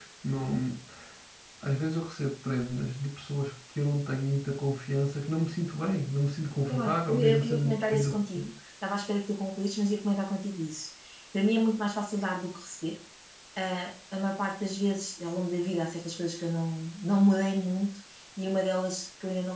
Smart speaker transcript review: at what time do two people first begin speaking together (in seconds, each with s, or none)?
6.7 s